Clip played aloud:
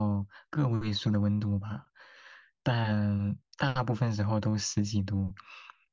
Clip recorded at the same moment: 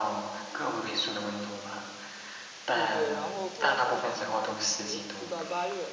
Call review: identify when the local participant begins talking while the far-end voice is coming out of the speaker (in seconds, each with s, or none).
2.7 s